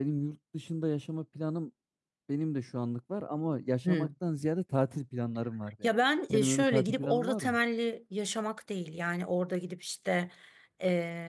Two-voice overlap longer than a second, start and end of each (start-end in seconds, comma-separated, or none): 6.3-7.6